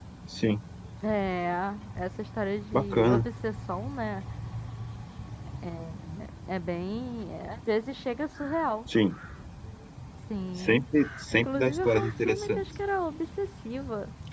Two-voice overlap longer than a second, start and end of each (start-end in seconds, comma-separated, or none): 11.3-12.6